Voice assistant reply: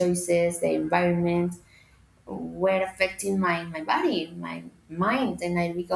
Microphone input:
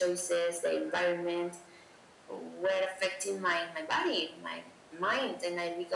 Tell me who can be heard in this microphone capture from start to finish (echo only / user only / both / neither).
echo only